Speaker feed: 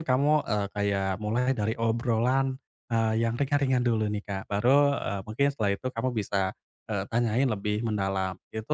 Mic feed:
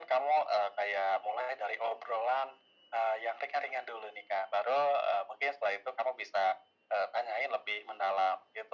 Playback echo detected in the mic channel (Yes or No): Yes